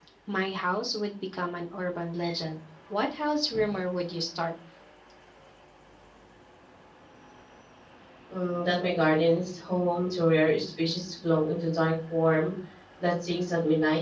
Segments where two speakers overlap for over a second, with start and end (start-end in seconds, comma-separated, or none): none